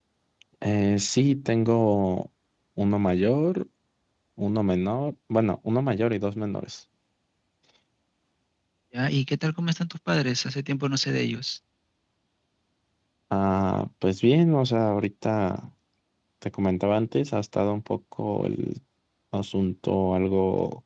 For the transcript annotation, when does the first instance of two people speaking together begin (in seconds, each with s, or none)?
none